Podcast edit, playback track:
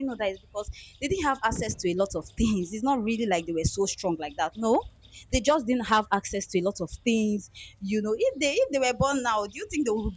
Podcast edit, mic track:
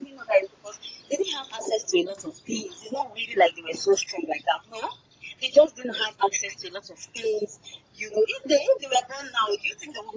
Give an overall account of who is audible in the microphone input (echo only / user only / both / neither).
echo only